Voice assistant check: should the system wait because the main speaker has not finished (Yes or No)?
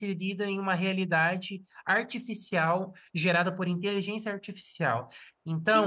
Yes